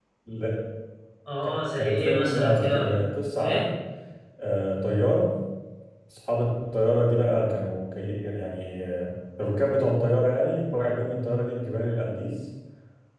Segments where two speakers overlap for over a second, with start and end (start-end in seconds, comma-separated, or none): 1.4-2.9